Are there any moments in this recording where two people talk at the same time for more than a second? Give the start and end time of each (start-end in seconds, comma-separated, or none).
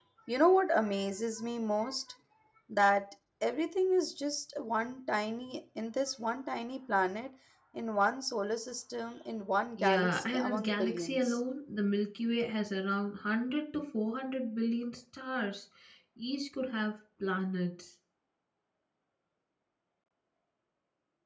9.8-11.4